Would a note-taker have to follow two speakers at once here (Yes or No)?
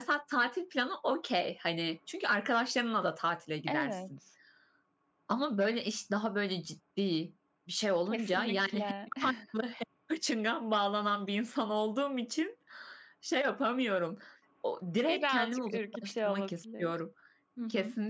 Yes